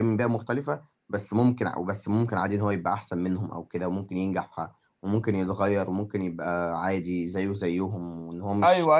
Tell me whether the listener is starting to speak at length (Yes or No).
Yes